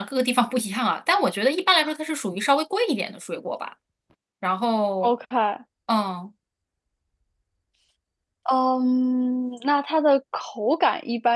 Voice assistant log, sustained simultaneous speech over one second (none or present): none